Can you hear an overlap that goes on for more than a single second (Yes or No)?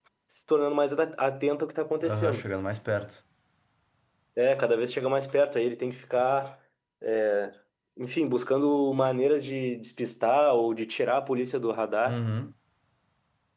No